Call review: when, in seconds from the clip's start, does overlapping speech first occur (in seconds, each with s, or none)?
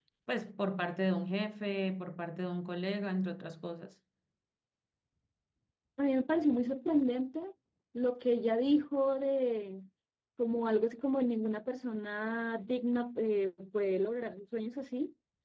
none